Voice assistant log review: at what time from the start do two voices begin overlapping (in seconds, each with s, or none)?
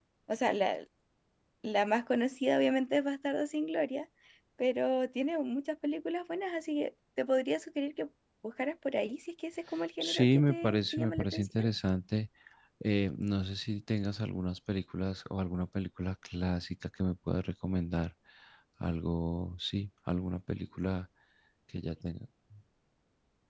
10.0 s